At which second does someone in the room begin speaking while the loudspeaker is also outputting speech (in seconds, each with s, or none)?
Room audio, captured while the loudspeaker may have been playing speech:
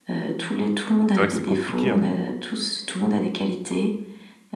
1.1 s